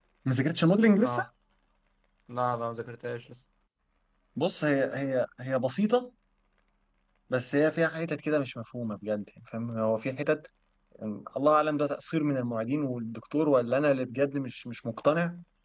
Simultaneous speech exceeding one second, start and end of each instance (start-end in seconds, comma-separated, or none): none